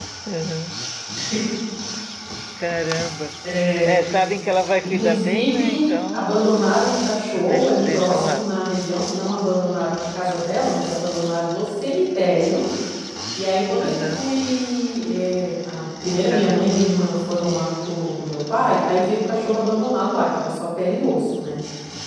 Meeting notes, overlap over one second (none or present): present